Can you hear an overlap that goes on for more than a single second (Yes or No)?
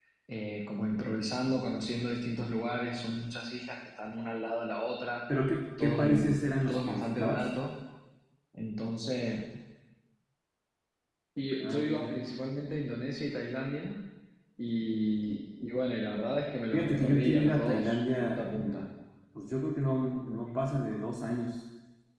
Yes